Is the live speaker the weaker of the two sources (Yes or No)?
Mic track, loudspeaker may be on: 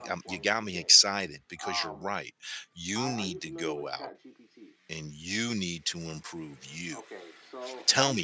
No